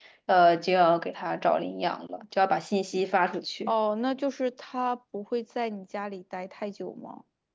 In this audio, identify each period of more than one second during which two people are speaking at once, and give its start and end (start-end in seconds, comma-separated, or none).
none